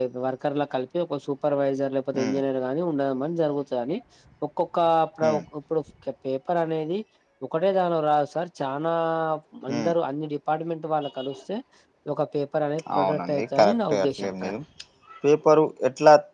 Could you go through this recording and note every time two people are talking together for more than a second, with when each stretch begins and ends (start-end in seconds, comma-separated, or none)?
12.9-14.6